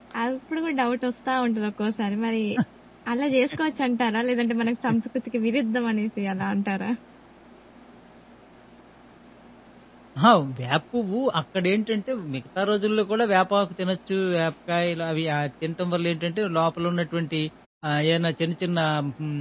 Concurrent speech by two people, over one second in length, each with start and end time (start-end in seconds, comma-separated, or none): none